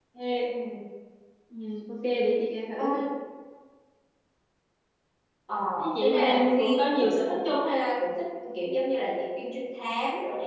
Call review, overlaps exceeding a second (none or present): present